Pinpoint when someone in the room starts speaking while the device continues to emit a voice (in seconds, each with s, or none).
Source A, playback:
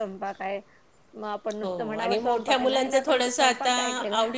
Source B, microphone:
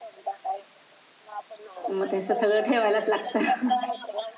1.9 s